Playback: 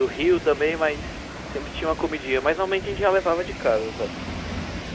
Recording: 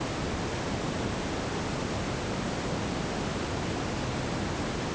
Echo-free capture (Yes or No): Yes